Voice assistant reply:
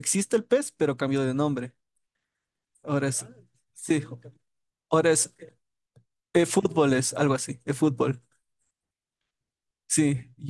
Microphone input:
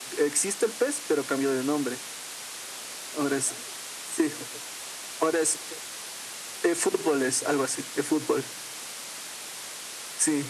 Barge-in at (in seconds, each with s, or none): none